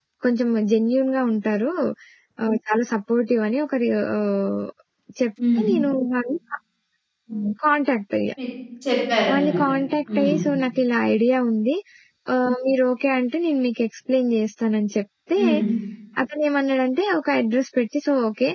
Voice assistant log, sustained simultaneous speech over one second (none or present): none